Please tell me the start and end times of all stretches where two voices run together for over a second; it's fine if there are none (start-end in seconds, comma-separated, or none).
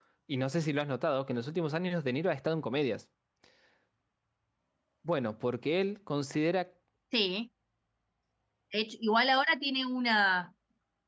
none